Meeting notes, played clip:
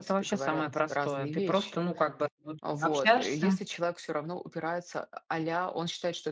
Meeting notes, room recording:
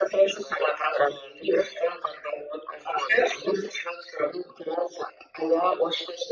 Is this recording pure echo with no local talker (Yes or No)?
Yes